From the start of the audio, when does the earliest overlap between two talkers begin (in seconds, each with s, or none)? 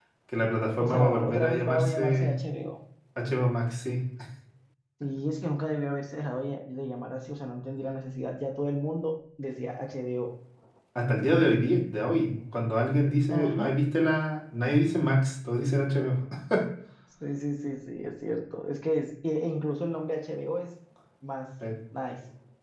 0.8 s